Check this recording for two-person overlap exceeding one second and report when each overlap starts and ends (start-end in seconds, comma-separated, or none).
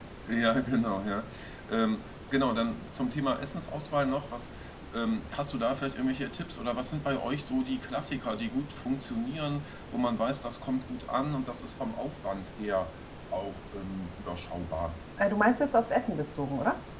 none